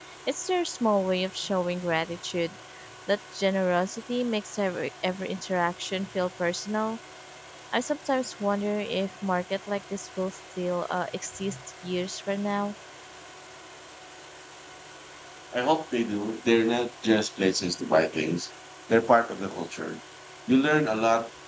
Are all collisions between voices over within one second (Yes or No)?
Yes